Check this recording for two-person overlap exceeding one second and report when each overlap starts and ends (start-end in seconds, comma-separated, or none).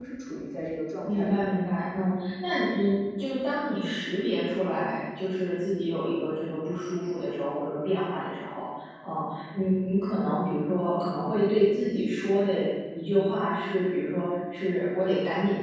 none